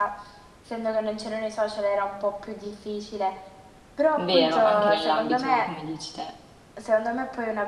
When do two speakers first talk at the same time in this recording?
4.3 s

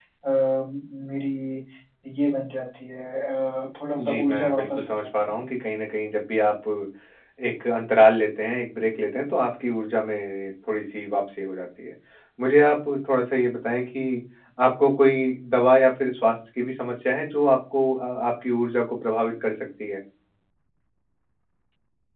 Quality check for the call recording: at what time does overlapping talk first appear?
4.0 s

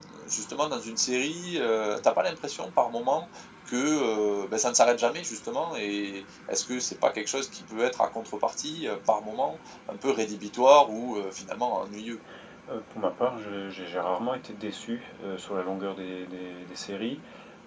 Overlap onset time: none

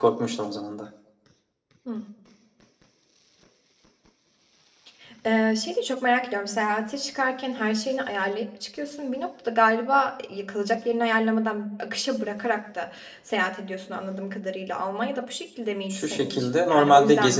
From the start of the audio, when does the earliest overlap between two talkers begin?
15.9 s

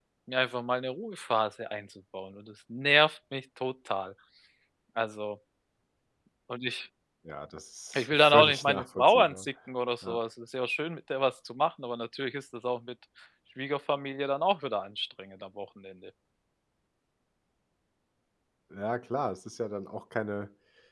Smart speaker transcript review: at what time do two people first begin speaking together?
8.0 s

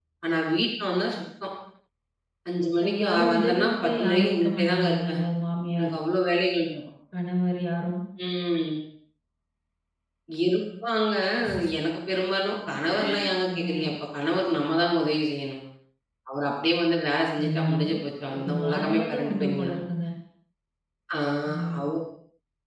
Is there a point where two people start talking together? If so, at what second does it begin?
2.8 s

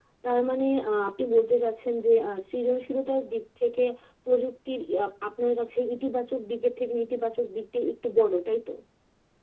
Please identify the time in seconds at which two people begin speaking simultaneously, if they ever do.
none

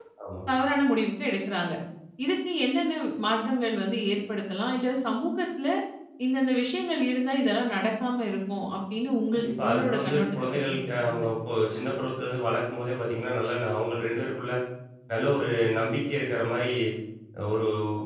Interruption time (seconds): 9.3 s

